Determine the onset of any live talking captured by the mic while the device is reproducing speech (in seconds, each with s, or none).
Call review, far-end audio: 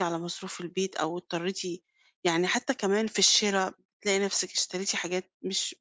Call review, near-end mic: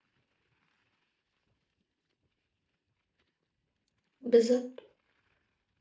4.2 s